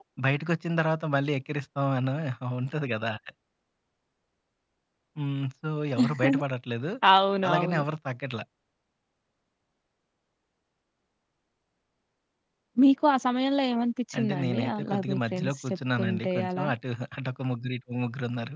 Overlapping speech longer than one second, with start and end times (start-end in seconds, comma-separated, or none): 14.2-16.7